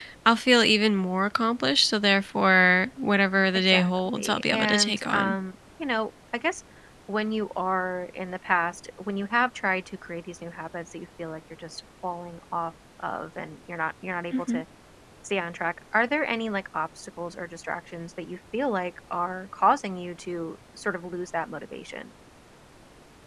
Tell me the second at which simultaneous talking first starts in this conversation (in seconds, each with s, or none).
3.7 s